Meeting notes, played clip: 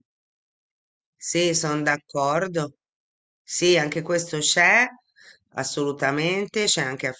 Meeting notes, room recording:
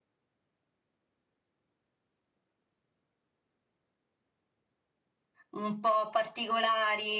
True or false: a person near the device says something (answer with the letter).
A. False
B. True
B